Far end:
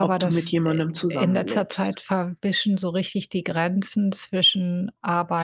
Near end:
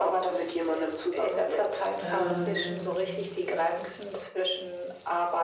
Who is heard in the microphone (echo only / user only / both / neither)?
both